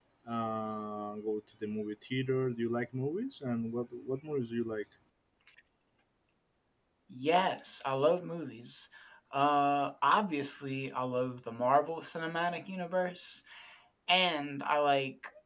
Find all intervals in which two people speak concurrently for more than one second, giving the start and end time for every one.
none

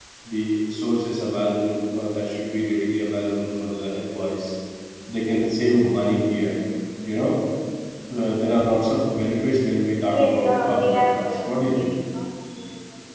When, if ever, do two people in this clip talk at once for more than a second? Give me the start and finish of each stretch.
10.1-12.0

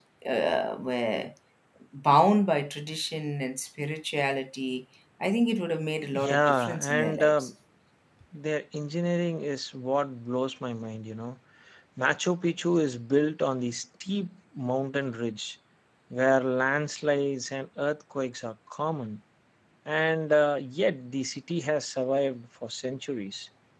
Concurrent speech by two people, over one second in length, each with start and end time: 6.1-7.5

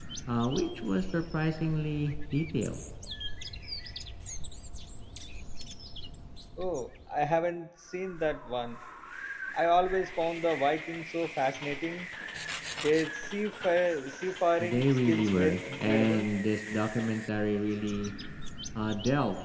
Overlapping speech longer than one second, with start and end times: 14.6-16.2

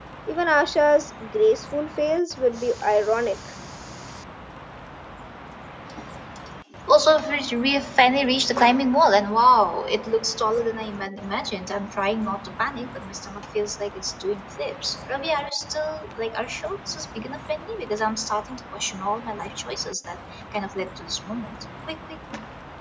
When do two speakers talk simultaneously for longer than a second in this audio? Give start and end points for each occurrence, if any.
none

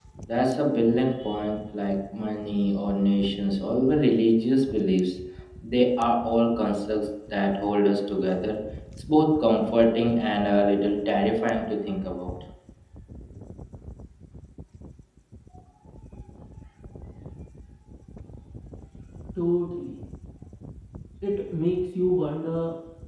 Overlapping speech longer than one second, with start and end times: none

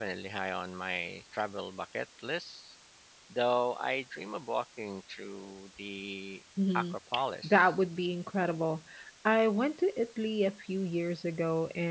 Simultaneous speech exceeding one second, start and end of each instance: none

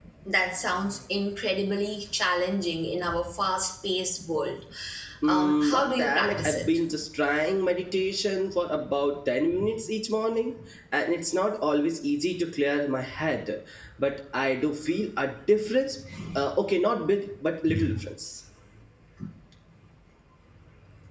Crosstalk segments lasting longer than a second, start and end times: 5.3-6.7

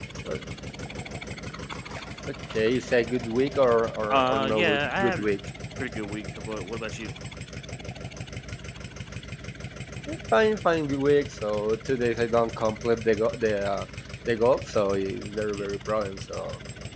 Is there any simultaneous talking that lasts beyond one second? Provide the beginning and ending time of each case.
4.1-5.3

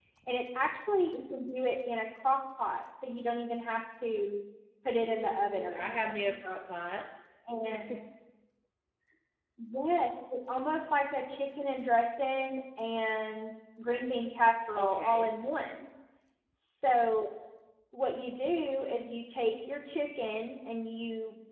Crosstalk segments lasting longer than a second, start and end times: 5.0-6.3

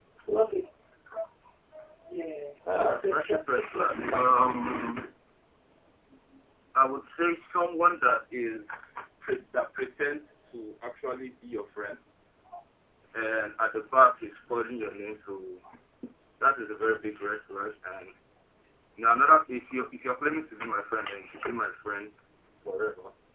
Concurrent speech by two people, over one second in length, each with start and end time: 2.8-4.8

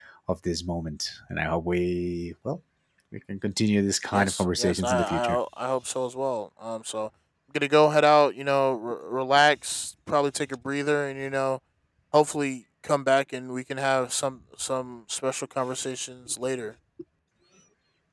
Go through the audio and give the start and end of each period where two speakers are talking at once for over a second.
4.1-5.4

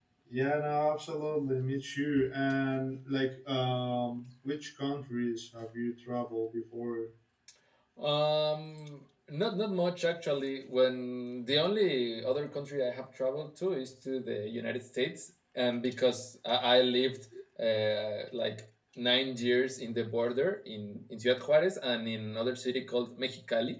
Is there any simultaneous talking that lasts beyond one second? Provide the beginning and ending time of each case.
none

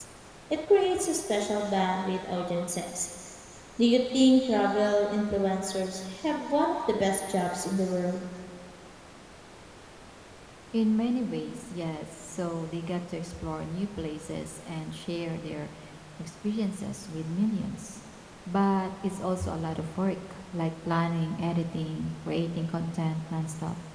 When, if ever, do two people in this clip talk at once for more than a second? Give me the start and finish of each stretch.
none

